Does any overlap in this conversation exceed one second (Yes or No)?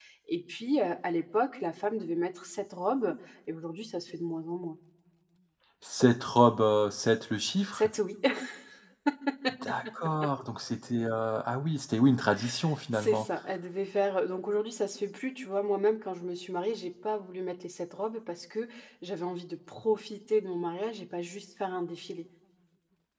No